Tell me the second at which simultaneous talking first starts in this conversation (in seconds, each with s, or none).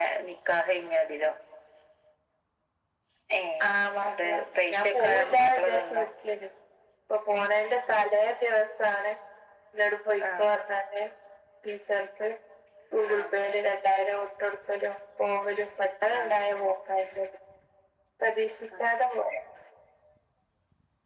3.6 s